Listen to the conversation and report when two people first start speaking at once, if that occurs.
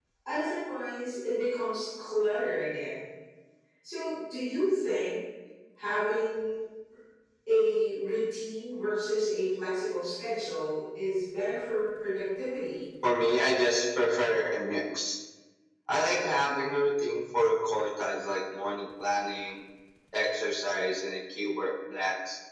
none

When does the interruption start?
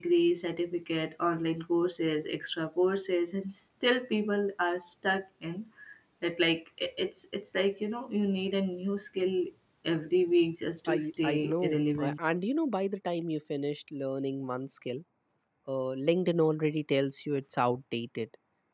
11 s

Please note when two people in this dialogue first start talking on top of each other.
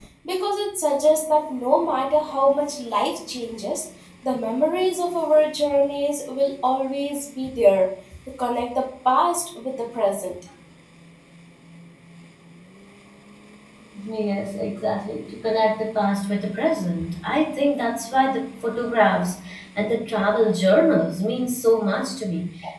none

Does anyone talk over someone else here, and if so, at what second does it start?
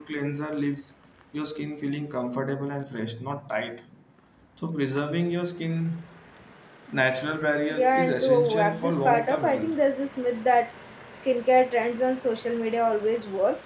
8 s

